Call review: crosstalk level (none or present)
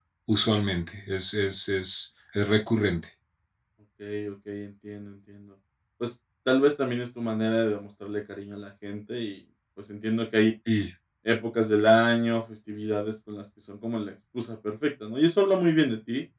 none